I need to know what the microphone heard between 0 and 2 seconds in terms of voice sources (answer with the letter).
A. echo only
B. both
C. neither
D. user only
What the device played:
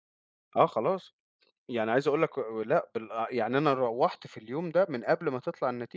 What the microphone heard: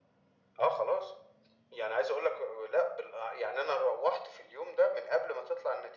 A